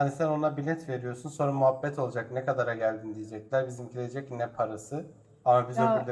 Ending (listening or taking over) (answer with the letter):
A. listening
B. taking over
A